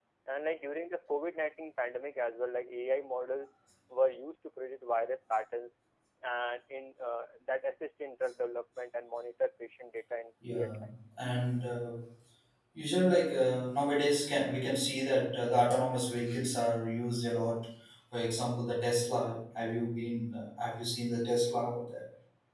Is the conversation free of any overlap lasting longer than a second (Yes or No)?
Yes